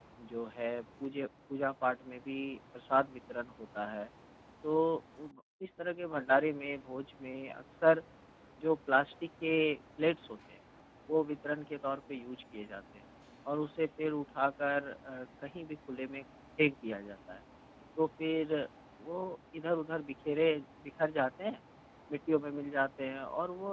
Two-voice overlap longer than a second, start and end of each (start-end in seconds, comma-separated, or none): none